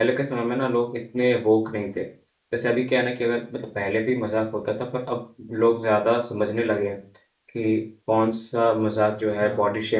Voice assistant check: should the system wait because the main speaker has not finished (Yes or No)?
Yes